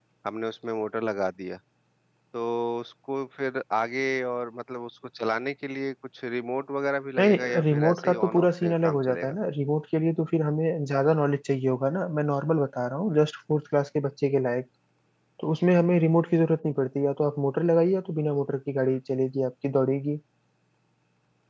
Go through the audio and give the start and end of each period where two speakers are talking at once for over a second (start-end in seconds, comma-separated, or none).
7.2-9.3